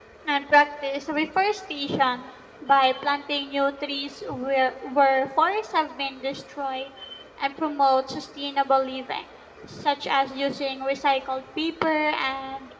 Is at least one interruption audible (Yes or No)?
No